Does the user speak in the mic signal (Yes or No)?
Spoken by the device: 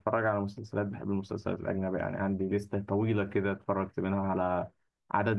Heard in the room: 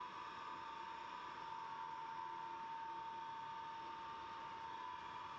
No